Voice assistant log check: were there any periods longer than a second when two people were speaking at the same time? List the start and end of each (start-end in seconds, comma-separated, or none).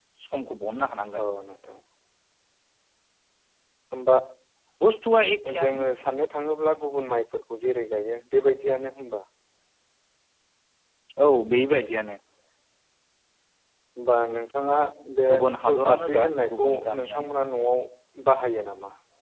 15.3-17.3